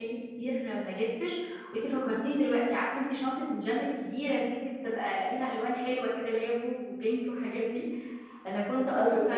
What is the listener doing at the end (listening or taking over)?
listening